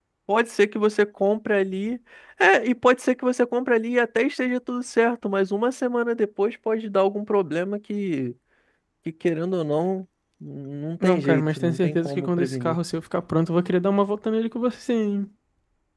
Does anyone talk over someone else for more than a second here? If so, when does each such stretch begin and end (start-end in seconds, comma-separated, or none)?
11.0-12.8